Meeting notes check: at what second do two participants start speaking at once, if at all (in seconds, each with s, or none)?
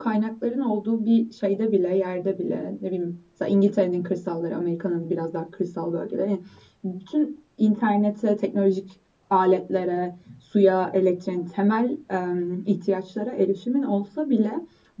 none